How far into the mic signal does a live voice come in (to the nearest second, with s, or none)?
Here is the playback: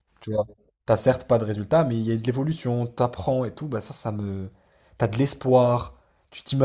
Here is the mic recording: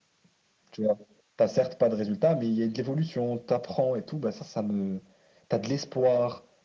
none